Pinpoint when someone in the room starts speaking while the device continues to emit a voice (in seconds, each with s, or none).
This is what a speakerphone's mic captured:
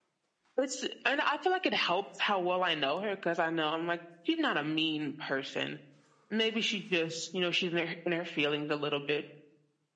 none